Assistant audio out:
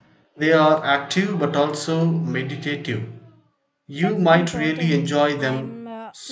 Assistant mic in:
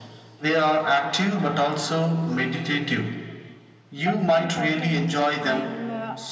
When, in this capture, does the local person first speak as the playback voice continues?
none

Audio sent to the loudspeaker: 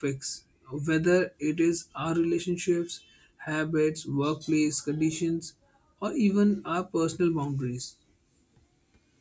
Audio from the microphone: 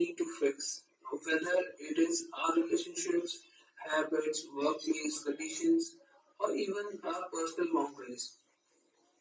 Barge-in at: none

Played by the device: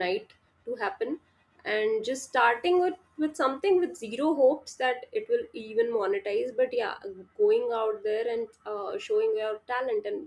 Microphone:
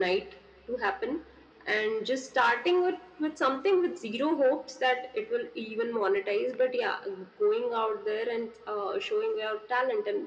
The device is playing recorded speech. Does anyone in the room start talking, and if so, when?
none

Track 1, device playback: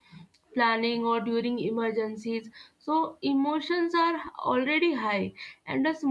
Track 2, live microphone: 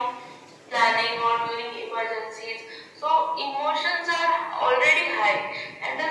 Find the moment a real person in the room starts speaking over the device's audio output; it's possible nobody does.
none

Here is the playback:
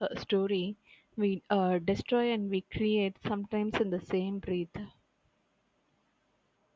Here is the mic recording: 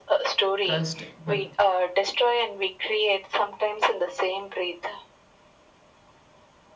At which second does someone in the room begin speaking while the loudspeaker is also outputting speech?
0.6 s

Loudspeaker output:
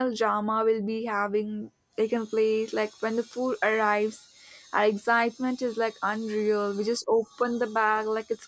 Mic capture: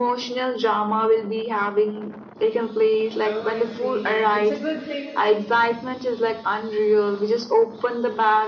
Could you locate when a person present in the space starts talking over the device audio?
3.2 s

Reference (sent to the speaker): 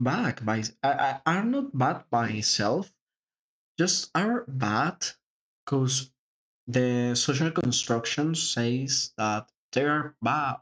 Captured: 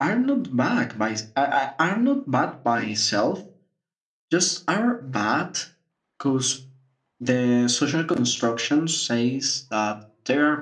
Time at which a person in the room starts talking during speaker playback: none

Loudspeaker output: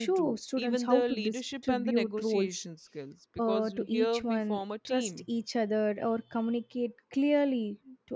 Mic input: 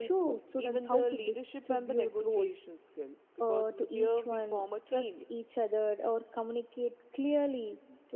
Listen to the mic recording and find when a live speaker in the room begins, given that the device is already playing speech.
none

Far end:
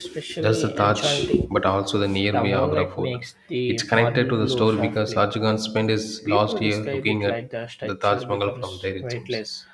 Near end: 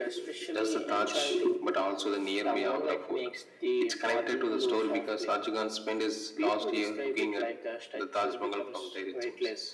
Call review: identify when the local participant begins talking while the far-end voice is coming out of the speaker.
none

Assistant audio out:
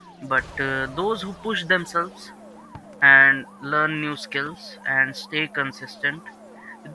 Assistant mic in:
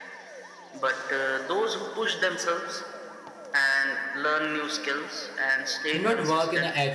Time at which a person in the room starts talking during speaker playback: 5.9 s

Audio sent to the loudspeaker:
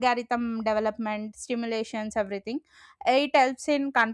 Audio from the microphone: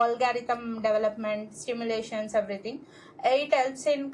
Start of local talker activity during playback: none

